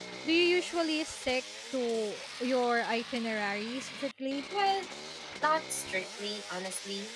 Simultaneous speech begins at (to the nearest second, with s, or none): none